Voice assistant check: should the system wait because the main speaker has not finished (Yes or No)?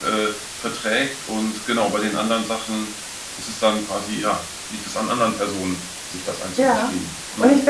No